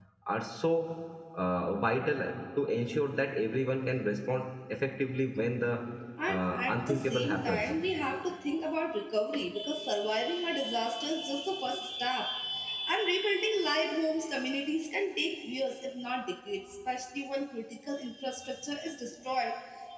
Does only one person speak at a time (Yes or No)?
No